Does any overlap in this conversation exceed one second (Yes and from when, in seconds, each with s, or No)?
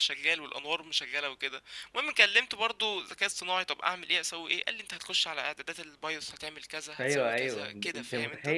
Yes, from 7.0 s